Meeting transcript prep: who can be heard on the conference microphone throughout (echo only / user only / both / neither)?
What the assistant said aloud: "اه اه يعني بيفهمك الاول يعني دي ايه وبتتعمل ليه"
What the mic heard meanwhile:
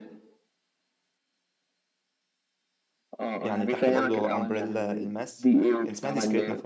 both